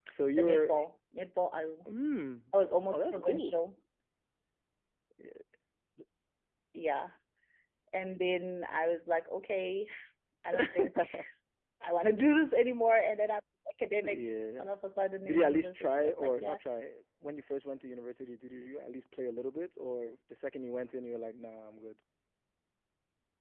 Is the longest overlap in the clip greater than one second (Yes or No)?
Yes